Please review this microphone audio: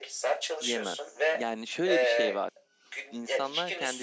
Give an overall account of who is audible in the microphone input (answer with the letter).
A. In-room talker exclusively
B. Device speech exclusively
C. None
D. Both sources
D